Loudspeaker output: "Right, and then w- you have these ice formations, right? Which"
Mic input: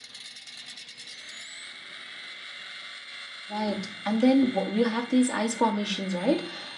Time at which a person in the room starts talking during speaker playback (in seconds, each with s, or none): none